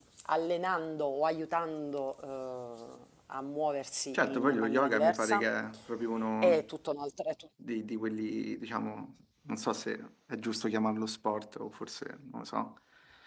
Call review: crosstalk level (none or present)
present